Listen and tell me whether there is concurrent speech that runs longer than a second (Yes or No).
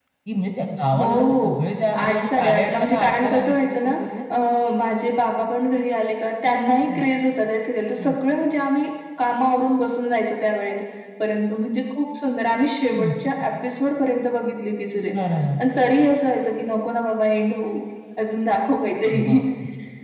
Yes